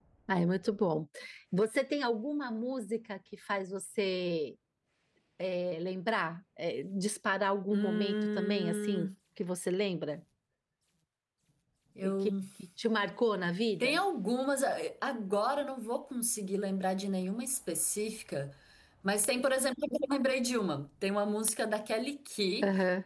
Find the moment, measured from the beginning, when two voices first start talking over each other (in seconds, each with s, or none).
7.7 s